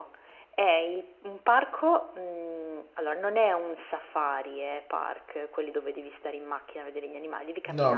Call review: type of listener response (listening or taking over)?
taking over